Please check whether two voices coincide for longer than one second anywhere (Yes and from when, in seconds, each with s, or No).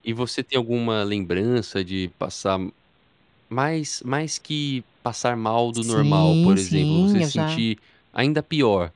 Yes, from 5.7 s